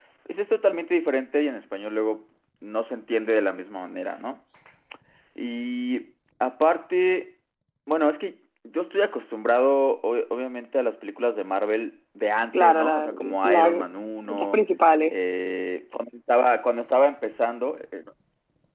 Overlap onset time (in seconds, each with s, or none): 12.5 s